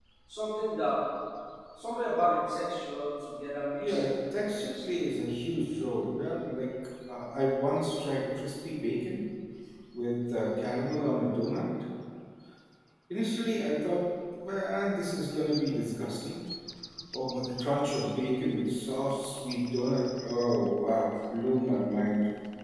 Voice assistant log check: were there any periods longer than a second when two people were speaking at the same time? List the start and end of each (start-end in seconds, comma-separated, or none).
3.8-5.1